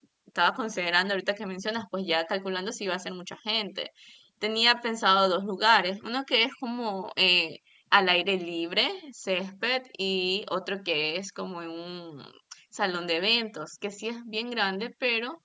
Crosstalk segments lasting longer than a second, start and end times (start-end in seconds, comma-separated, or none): none